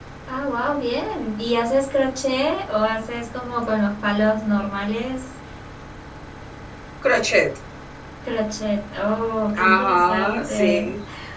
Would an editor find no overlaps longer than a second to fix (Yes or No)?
No